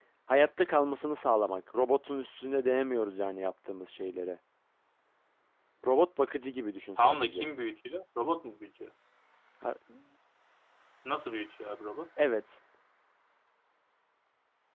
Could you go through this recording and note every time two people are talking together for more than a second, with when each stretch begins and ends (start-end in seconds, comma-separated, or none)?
none